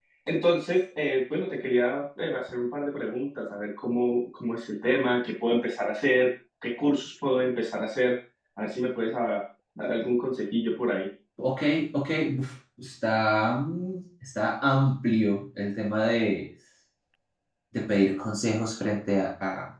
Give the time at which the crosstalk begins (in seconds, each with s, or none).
none